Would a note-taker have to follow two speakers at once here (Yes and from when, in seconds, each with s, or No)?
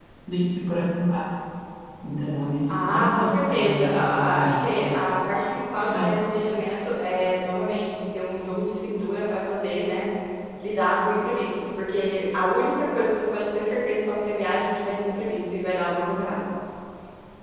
Yes, from 2.7 s